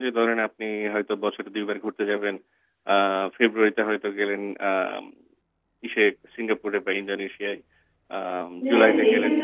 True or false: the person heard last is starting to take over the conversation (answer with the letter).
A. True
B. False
A